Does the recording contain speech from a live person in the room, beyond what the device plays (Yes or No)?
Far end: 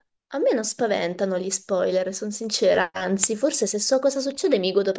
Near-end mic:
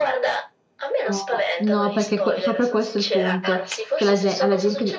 Yes